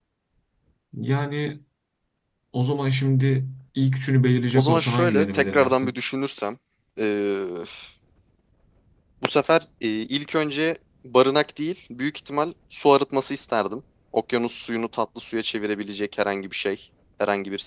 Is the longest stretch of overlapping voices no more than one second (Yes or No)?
No